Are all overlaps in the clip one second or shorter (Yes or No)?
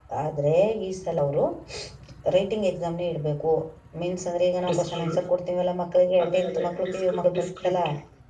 No